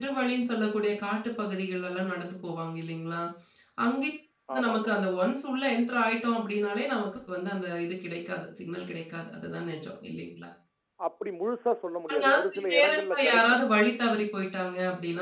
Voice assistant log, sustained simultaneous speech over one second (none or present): present